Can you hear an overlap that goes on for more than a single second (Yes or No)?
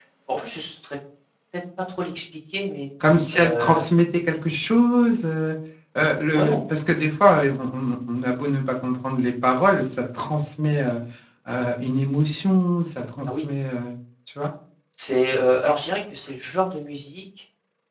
No